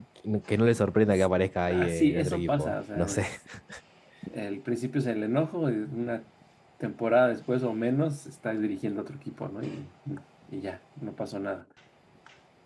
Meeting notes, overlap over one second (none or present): present